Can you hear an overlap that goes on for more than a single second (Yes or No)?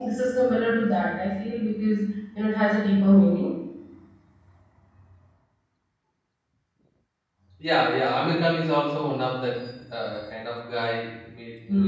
No